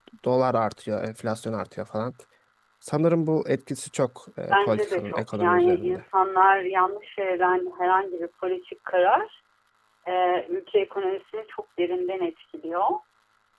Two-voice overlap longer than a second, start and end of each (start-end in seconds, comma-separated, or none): 4.5-6.0